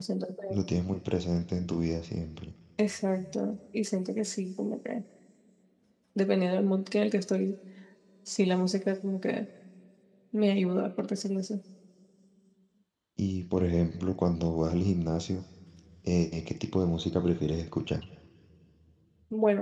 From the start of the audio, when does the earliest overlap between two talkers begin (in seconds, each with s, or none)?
none